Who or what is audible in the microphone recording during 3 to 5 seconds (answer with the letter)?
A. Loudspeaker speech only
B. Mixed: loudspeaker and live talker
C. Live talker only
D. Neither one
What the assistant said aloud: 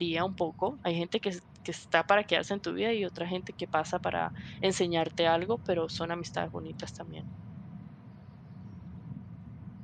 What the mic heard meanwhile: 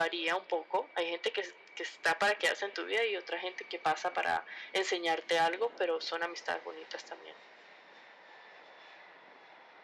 A